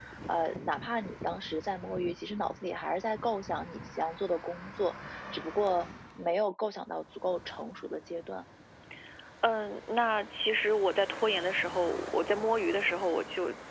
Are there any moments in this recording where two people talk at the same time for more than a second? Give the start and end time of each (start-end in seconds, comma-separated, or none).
none